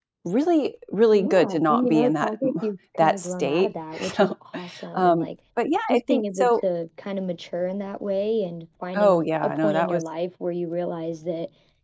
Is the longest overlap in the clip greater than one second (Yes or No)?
Yes